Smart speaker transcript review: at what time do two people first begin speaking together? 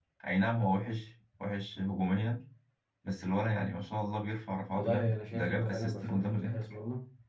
4.7 s

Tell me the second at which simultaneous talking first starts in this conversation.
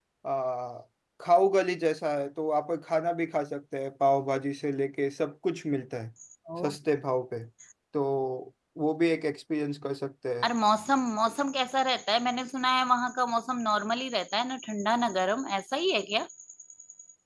none

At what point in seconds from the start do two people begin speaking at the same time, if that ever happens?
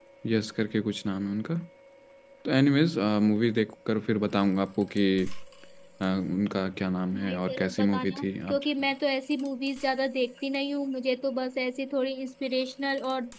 7.1 s

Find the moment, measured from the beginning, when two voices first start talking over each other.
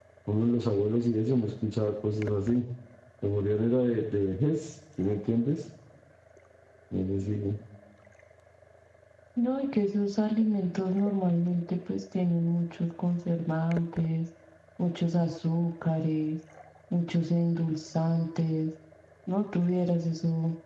none

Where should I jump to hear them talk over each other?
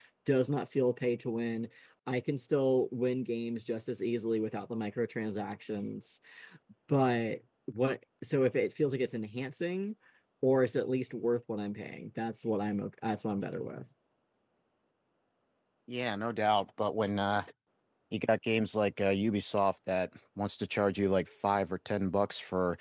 none

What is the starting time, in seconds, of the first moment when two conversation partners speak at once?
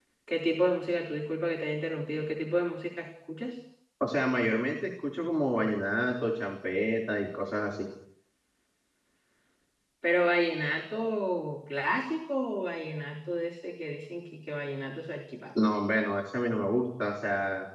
none

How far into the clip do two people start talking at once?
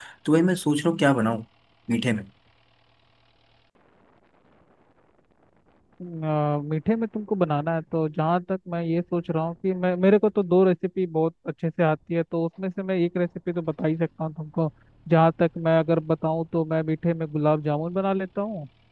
none

